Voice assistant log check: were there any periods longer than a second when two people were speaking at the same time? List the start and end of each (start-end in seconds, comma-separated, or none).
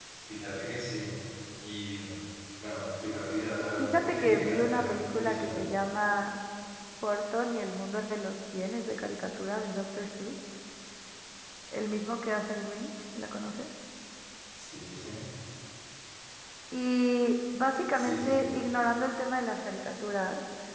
3.8-5.6